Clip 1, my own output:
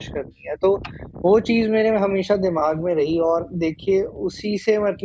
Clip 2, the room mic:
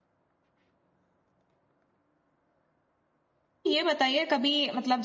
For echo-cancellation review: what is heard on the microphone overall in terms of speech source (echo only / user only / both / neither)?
user only